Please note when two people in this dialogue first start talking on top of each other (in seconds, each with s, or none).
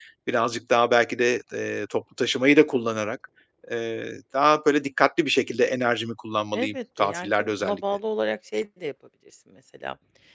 6.5 s